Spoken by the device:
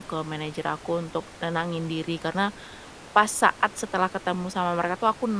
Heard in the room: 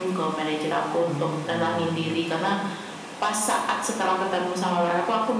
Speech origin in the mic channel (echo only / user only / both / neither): both